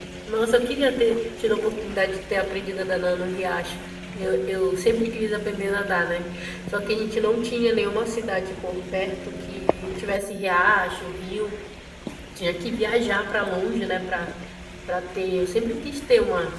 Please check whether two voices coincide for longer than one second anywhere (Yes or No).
No